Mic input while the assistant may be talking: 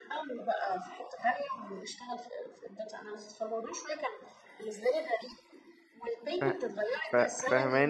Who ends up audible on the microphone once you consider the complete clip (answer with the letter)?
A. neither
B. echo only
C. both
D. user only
C